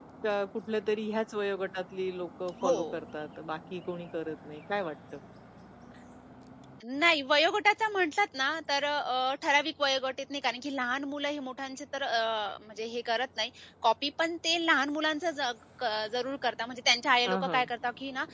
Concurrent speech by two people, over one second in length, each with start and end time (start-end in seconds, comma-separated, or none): none